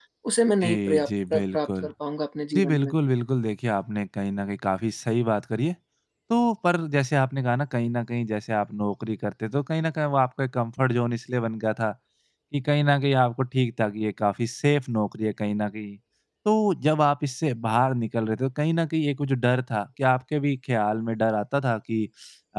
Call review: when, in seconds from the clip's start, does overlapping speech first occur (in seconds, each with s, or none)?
0.6 s